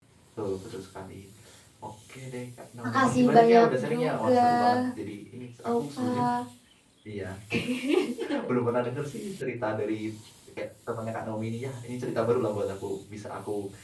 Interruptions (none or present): present